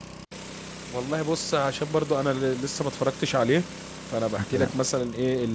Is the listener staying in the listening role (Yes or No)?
Yes